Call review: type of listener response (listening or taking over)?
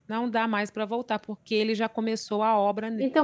taking over